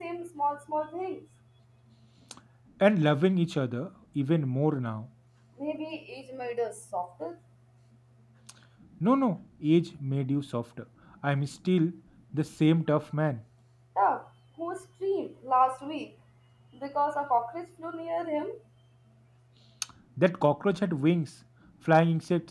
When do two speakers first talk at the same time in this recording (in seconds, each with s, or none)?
none